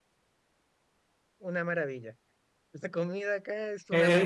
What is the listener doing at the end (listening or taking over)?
taking over